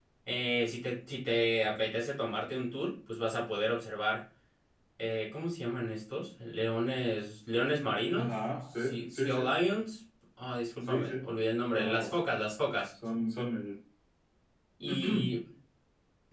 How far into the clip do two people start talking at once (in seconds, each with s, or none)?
8.1 s